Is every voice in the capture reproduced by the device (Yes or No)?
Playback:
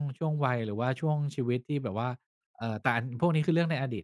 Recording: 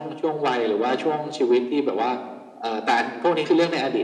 Yes